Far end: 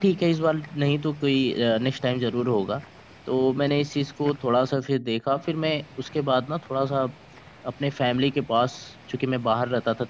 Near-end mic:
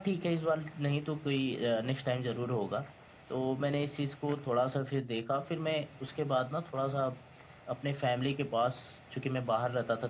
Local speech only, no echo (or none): none